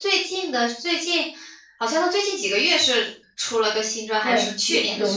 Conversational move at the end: taking over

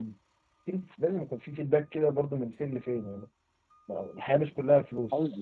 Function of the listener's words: taking over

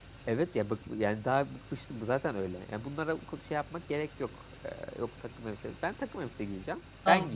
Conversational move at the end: taking over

